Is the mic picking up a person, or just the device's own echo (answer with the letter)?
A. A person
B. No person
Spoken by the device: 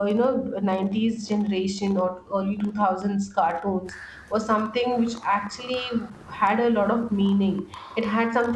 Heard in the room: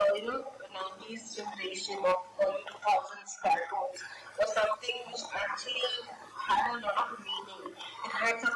B